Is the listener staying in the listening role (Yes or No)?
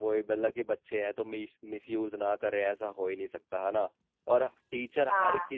Yes